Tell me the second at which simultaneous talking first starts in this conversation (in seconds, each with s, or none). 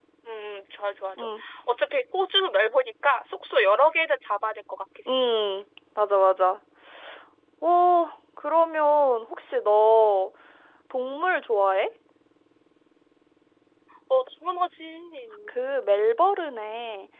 none